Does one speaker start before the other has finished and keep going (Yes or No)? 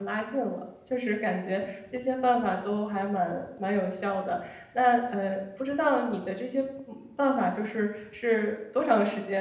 No